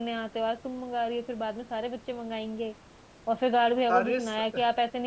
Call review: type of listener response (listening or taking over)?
listening